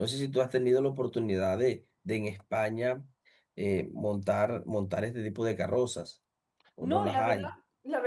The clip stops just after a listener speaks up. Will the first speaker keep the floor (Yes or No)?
No